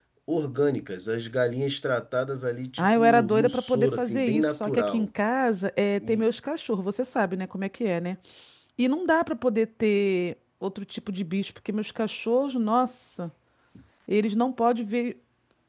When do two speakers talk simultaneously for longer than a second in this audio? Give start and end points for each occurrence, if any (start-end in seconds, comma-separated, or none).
2.8-5.1